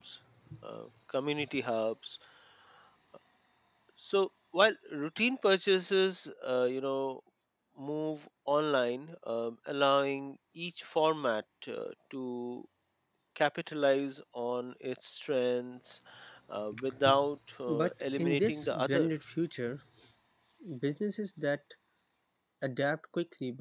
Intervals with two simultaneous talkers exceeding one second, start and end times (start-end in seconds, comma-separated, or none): 17.7-19.1